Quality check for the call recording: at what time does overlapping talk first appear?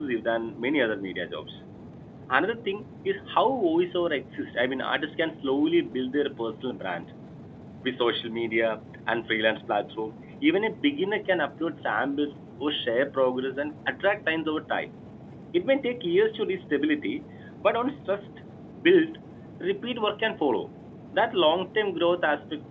none

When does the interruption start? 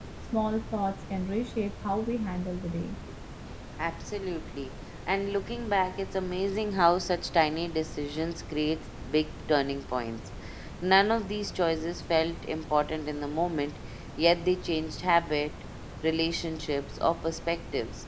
none

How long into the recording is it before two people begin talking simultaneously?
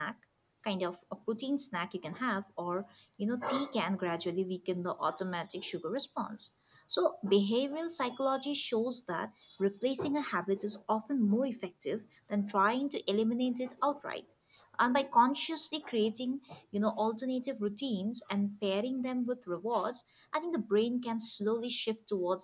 none

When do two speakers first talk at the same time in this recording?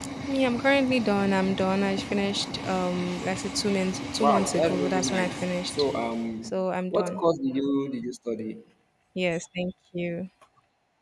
4.2 s

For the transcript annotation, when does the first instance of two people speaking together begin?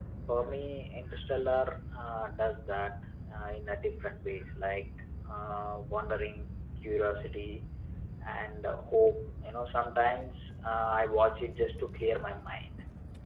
none

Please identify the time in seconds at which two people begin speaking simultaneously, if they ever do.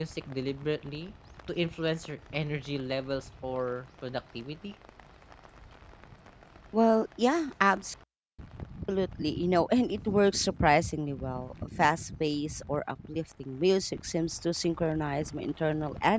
none

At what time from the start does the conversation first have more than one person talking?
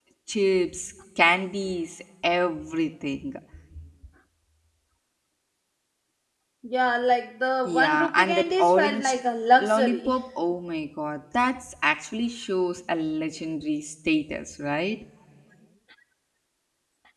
7.6 s

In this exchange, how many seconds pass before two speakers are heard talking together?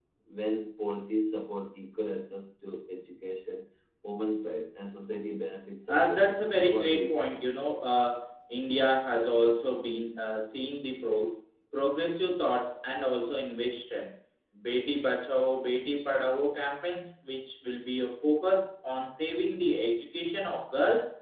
5.9 s

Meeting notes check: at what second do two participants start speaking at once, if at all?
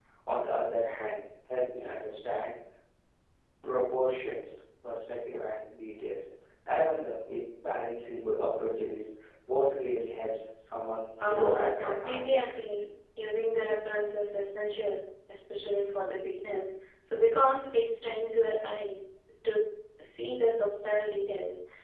11.2 s

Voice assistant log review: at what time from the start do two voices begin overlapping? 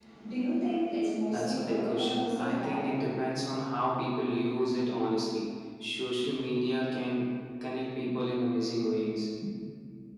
1.3 s

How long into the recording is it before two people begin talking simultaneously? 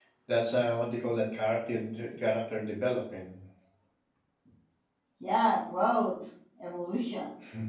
none

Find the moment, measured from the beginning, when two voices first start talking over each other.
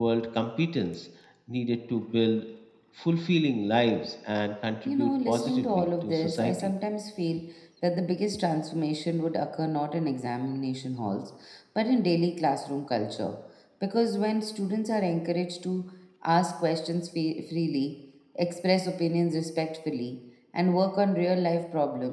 4.8 s

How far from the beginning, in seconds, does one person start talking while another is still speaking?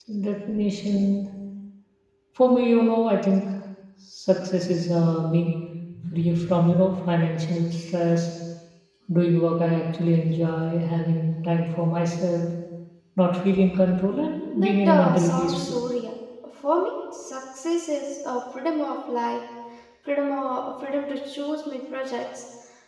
14.6 s

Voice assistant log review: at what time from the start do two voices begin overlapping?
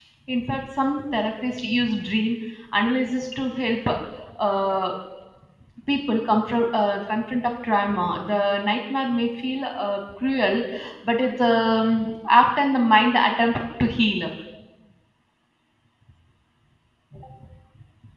none

